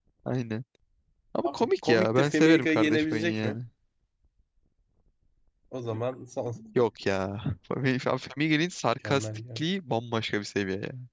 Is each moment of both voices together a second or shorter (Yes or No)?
No